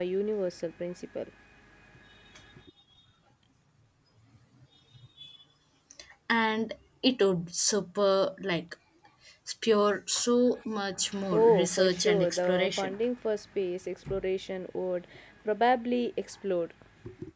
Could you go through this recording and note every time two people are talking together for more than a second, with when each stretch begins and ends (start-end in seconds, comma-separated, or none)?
11.3-12.9